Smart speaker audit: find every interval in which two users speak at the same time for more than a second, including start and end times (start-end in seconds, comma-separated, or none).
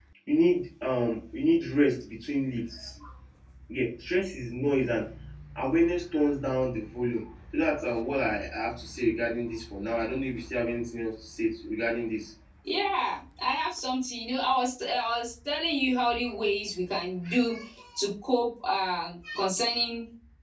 none